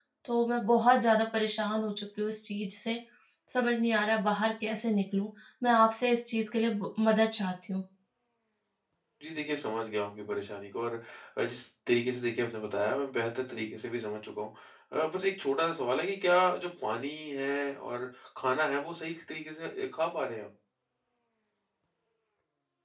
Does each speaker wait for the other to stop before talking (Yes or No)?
Yes